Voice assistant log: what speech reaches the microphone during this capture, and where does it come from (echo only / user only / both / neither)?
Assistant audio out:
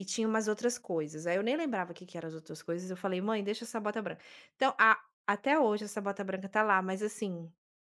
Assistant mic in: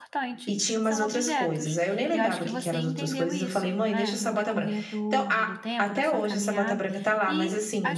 both